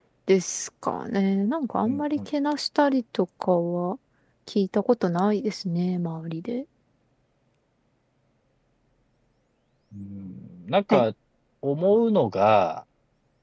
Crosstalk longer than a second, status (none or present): none